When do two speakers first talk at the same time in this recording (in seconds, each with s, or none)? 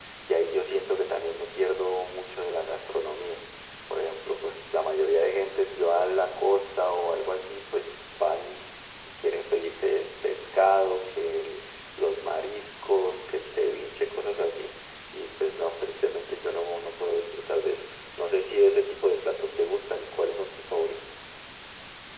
none